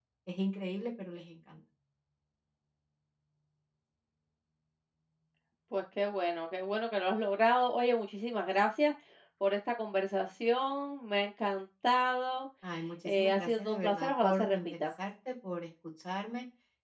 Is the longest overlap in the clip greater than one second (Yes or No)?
Yes